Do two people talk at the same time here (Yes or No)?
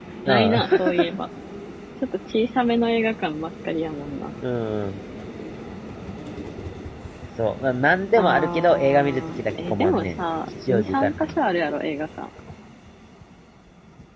Yes